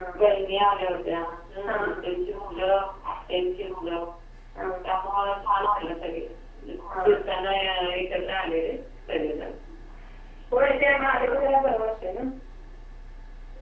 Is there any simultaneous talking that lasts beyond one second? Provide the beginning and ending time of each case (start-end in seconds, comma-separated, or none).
none